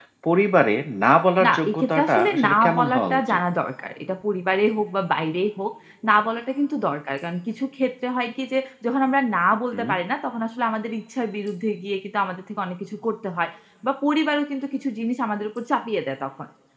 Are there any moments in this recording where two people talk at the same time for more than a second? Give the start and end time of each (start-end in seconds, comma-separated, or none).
1.4-3.4